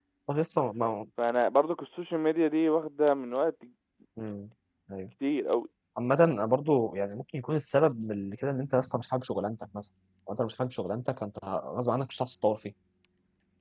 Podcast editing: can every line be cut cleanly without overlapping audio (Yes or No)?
Yes